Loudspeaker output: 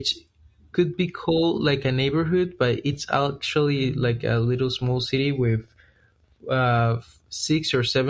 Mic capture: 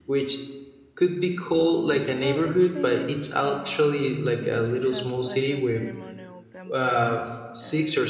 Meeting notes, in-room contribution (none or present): present